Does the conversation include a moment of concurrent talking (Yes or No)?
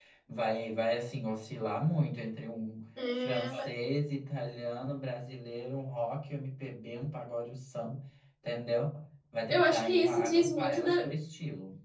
Yes